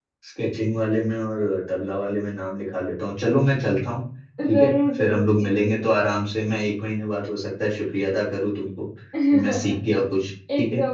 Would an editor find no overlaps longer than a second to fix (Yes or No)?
No